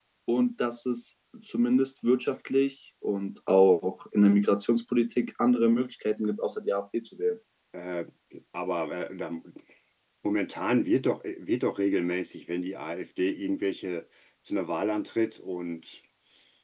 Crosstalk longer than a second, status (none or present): none